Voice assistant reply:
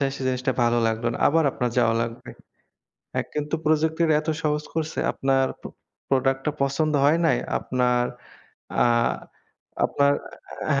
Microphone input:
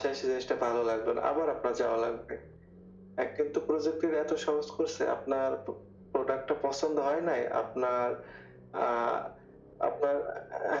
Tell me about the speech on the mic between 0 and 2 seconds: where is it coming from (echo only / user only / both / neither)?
echo only